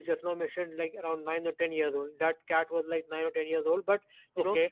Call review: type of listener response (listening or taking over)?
listening